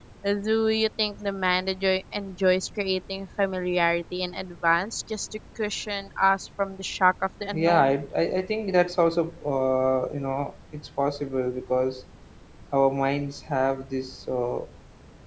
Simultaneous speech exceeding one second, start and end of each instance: none

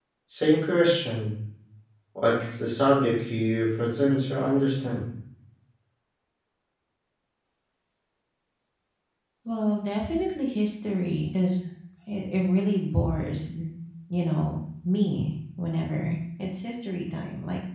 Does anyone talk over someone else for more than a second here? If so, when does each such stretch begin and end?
none

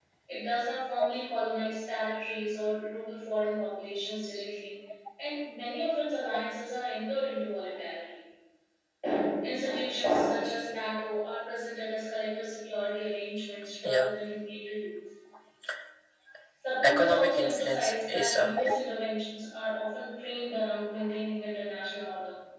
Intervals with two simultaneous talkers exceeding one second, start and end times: 16.8-18.5

